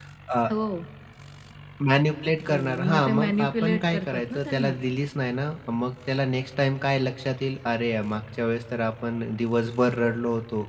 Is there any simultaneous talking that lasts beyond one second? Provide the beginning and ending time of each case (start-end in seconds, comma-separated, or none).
2.5-4.8